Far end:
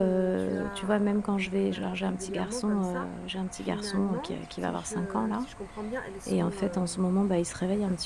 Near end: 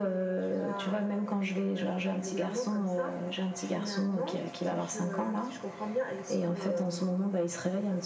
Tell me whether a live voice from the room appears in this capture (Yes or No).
No